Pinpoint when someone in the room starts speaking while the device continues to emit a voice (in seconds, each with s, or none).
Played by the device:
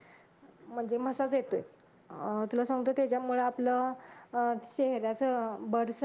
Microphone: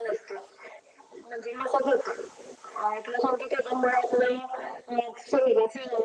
none